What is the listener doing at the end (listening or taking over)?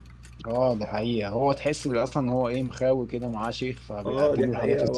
taking over